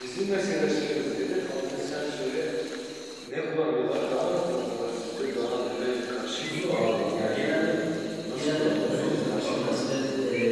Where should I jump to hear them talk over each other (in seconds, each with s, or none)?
6.4 s